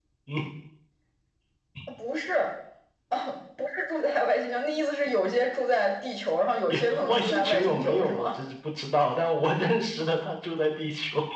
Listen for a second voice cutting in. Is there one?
Yes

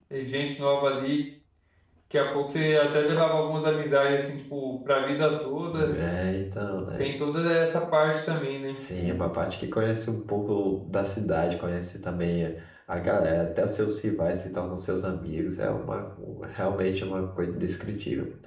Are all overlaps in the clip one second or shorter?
Yes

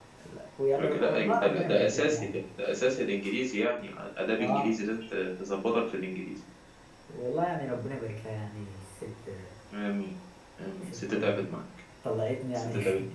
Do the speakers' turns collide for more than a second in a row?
Yes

